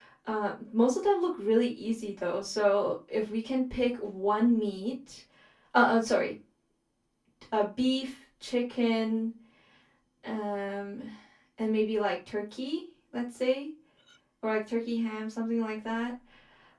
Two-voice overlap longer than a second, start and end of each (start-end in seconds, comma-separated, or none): none